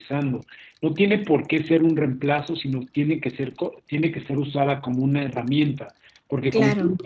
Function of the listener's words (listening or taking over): listening